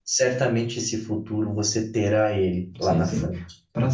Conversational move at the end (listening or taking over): taking over